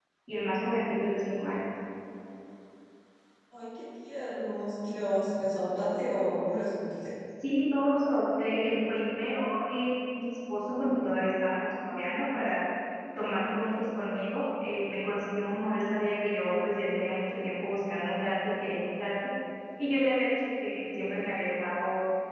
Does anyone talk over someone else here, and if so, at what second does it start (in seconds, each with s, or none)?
none